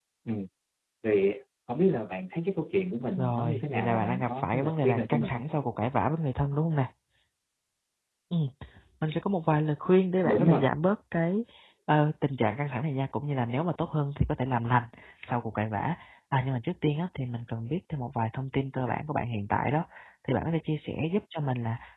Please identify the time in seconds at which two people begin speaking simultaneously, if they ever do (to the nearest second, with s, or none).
3 s